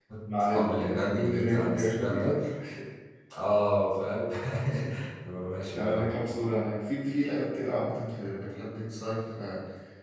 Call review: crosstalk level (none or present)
present